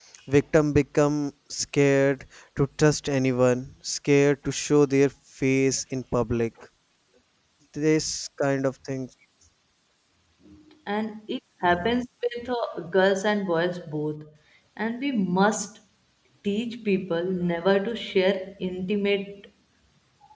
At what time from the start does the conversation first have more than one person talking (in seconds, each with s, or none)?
none